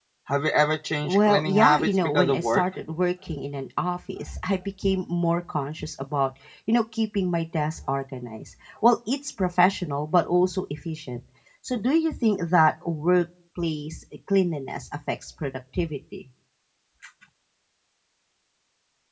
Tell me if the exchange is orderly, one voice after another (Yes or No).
No